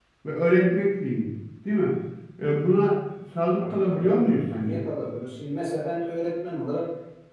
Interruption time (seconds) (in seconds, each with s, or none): 3.6 s